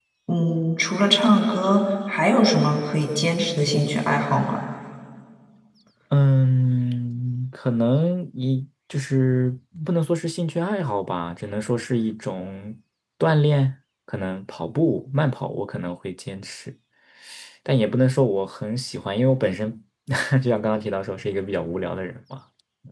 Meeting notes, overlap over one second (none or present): none